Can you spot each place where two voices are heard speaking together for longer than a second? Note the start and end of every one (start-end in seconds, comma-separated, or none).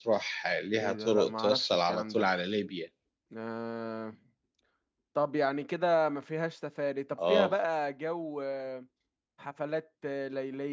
0.8-2.3